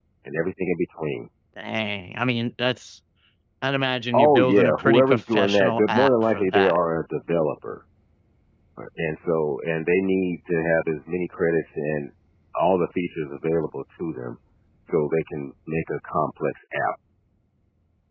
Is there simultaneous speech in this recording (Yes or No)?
Yes